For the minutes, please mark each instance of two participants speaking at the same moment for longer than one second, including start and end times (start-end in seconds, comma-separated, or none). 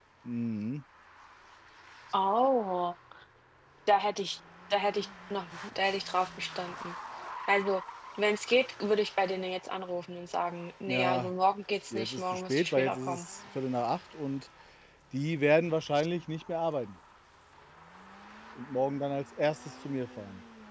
11.9-13.3